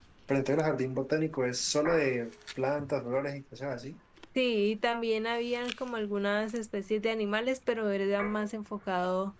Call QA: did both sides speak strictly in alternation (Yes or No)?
Yes